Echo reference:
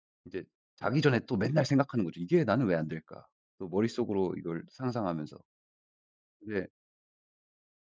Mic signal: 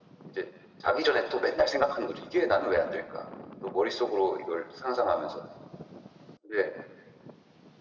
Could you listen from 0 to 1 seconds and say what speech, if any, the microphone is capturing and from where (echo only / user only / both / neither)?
echo only